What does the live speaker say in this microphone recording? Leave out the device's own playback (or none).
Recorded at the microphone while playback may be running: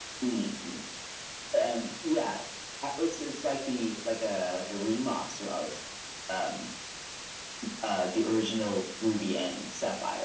none